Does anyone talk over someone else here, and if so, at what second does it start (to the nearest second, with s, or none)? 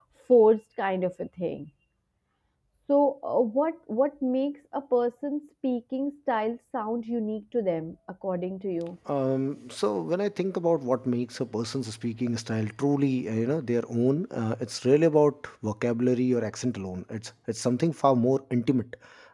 none